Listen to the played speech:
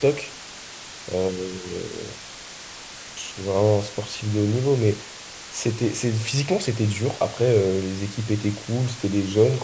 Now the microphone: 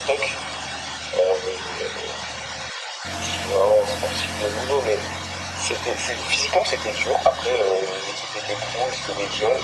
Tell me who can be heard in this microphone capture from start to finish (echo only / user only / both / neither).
echo only